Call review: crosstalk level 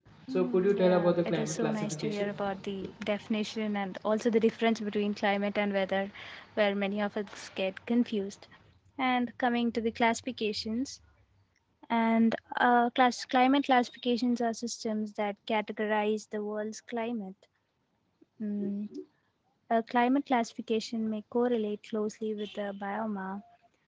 present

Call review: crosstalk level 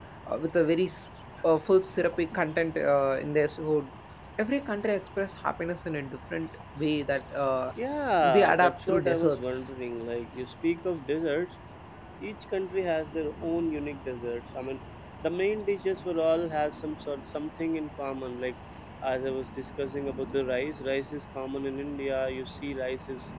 present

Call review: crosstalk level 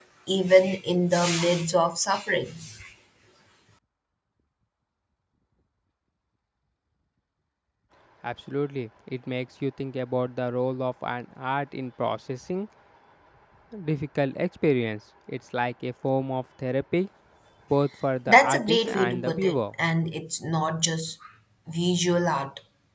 present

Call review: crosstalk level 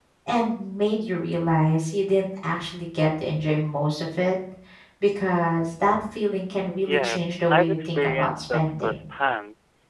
present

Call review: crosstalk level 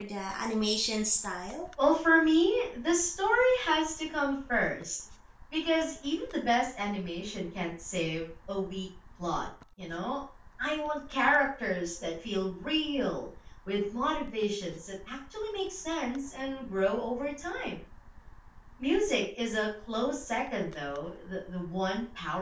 none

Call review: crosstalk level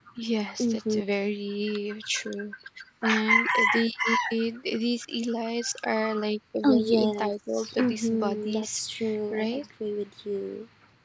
present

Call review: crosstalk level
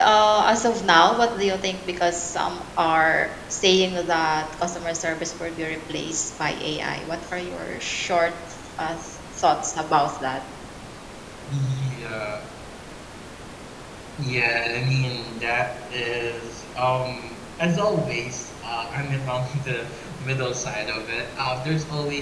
none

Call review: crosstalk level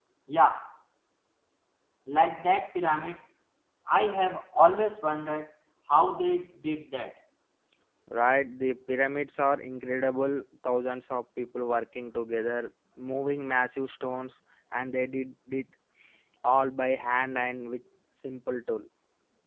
none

